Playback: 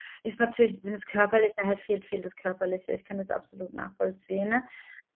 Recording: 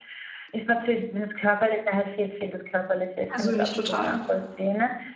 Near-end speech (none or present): present